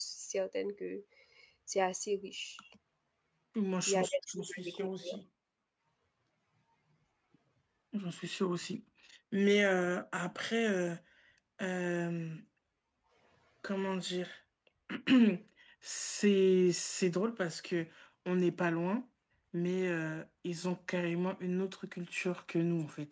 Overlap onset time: 3.9 s

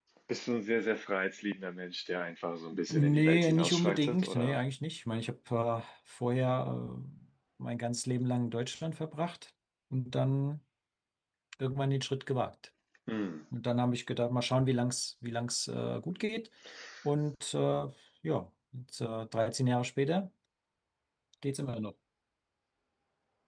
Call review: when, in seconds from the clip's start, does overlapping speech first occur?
2.7 s

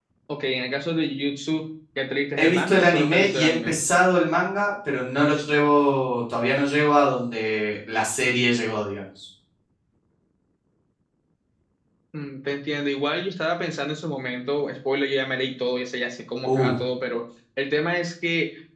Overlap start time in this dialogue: 2.4 s

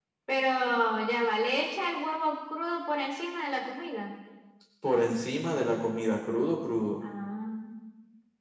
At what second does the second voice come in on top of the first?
none

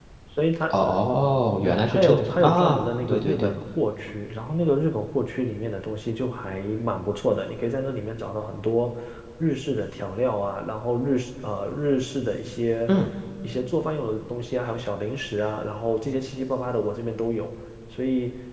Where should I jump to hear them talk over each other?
1.6 s

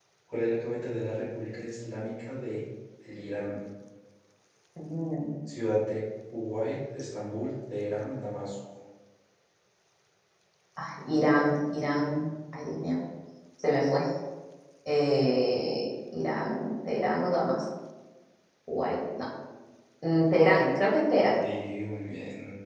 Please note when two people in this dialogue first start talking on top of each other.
none

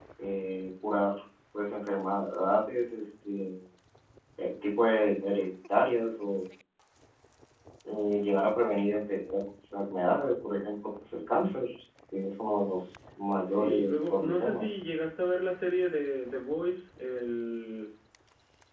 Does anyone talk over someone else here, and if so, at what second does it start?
13.5 s

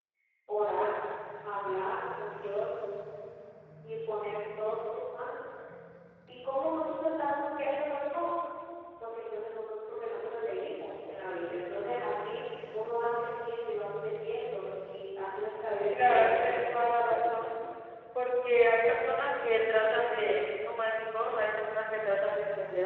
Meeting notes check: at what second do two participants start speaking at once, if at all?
15.9 s

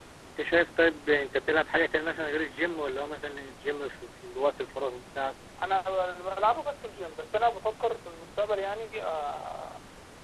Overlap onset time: none

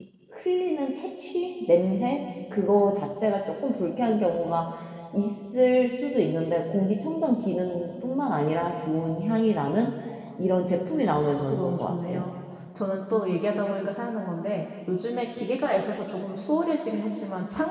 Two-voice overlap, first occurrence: 11.0 s

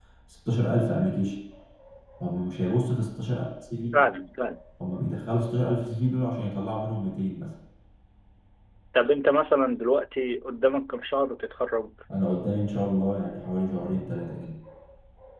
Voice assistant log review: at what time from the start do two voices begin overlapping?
none

